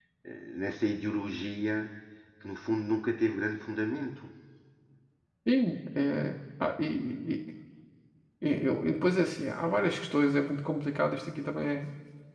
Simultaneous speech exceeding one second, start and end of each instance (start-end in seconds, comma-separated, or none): none